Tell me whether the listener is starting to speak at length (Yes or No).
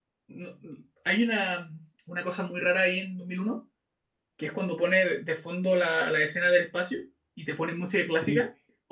No